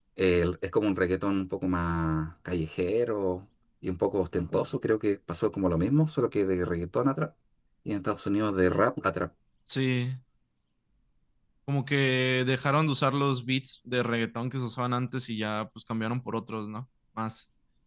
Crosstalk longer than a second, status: none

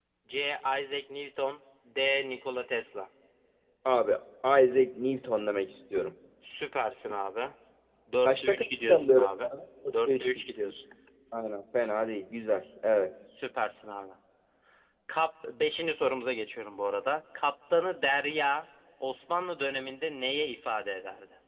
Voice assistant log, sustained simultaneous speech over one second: present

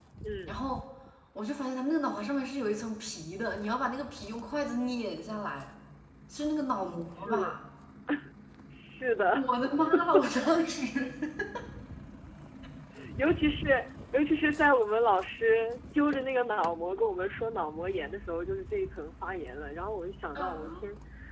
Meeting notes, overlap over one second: none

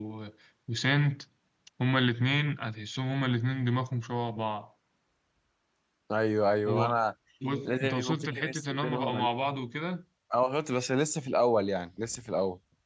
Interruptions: present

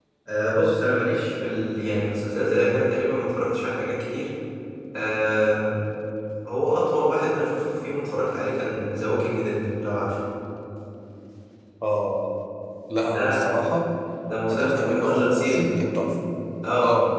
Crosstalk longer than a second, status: present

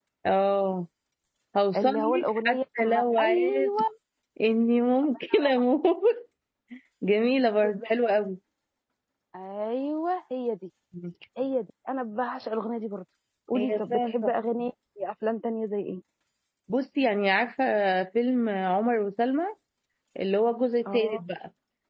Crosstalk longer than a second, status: present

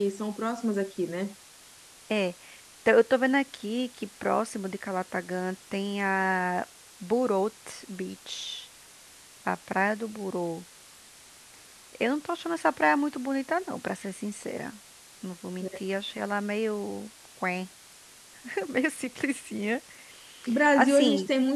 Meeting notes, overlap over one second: none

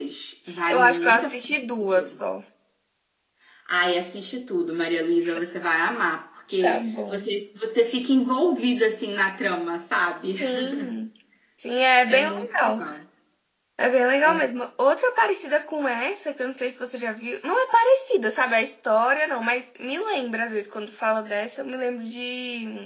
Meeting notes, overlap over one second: present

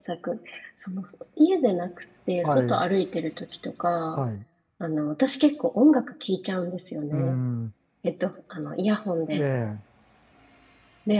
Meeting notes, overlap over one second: none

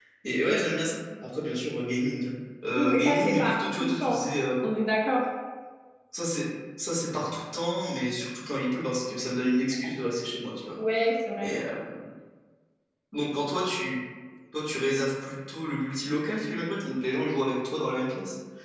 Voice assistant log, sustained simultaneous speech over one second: present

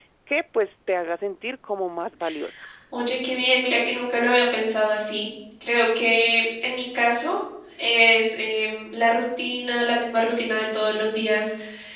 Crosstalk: none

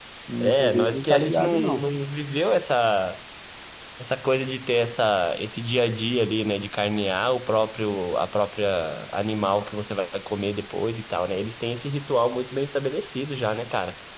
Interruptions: present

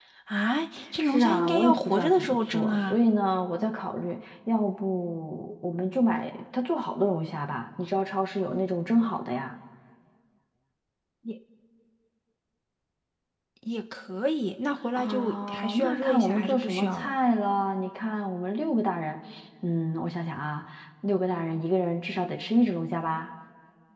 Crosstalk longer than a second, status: present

